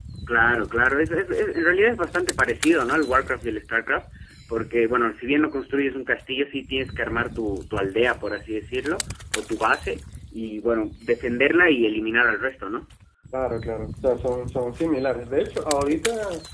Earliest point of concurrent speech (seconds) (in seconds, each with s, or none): none